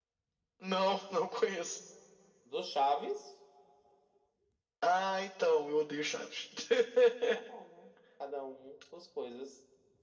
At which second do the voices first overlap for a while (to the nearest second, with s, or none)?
none